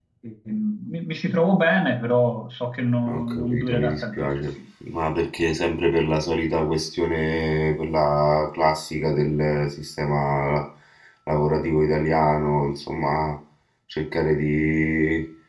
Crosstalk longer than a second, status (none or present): present